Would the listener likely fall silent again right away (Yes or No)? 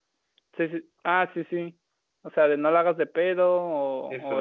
No